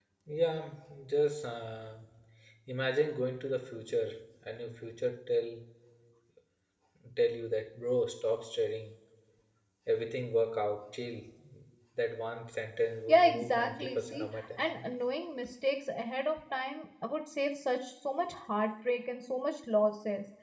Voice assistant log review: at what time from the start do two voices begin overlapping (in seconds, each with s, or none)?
13.1 s